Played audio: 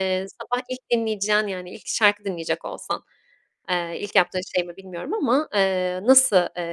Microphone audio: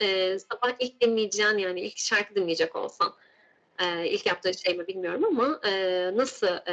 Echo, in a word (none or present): present